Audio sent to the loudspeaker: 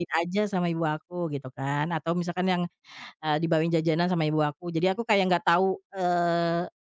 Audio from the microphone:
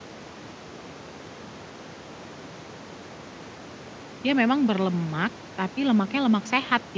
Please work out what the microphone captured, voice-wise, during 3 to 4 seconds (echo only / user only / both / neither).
neither